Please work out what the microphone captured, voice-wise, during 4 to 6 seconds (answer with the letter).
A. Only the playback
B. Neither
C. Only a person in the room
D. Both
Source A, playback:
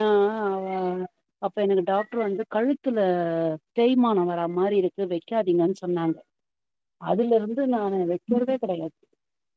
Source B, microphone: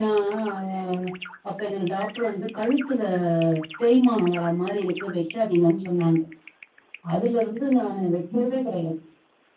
A